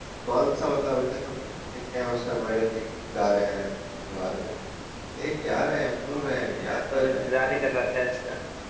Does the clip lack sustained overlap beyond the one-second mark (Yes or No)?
No